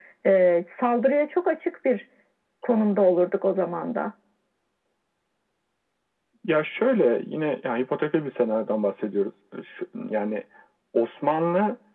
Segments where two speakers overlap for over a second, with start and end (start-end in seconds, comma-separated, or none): none